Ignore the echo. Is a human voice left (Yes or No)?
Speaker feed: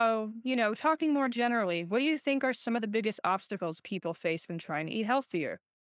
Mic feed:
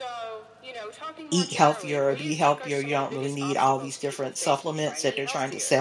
Yes